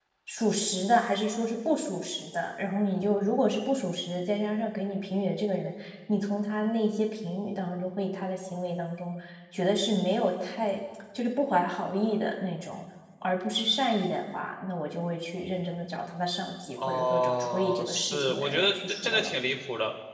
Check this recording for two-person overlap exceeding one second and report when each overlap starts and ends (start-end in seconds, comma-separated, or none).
16.9-19.3